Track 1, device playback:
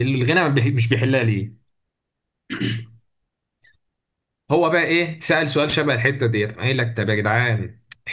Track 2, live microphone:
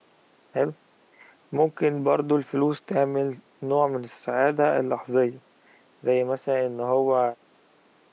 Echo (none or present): none